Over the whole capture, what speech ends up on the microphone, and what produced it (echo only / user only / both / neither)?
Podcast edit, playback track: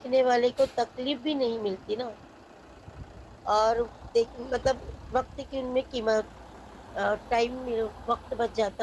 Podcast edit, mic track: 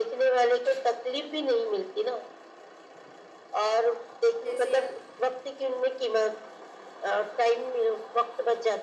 both